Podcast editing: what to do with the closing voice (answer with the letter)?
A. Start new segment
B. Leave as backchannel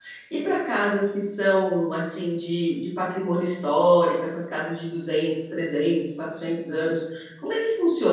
B